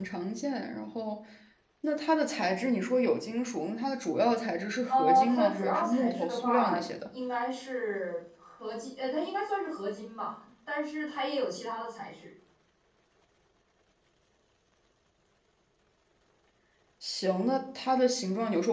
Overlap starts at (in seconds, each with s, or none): 4.9 s